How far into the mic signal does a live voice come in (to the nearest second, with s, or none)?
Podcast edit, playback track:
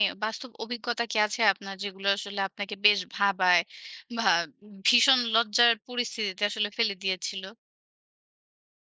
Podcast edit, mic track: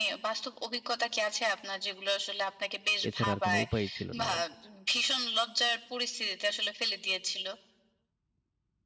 3 s